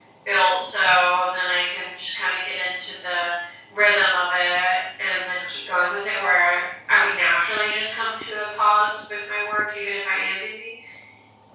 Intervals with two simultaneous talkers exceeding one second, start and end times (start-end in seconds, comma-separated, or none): none